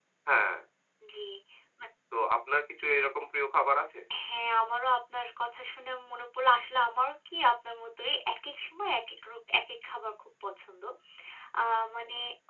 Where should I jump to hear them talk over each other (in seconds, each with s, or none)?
none